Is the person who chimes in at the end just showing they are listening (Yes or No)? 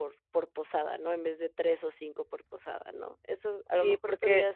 No